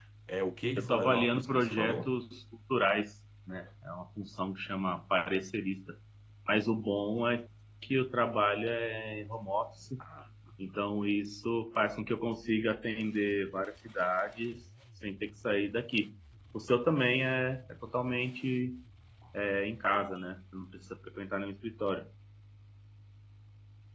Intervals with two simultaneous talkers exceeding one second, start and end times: 0.8-2.2

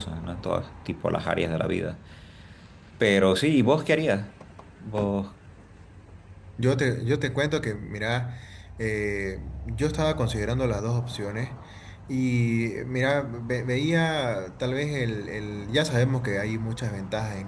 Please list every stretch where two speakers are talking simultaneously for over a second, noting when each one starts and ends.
none

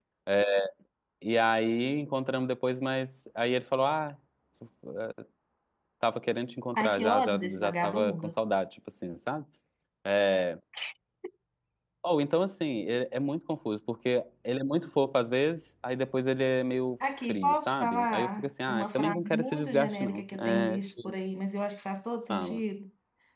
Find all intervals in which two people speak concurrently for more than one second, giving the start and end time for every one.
6.8-8.3, 17.3-21.1

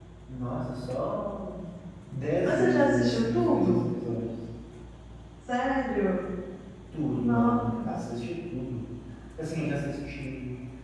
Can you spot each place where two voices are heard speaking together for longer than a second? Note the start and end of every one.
2.4-3.9

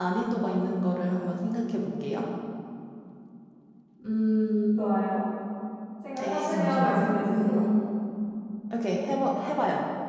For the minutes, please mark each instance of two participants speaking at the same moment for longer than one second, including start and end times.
6.1-7.6

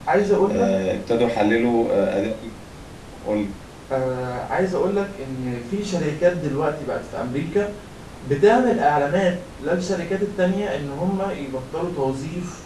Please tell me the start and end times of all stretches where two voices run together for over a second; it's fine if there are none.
none

